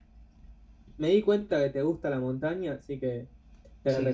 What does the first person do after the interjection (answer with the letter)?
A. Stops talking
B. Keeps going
B